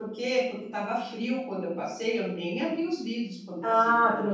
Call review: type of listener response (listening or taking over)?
taking over